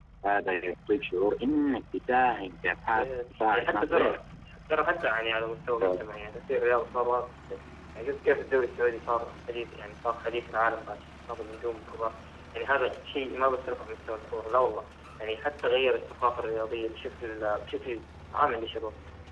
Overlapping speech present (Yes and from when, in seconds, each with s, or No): Yes, from 3.0 s